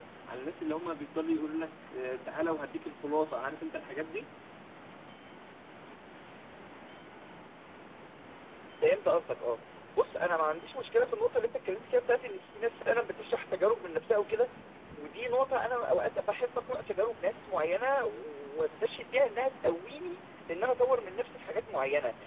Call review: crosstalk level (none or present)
none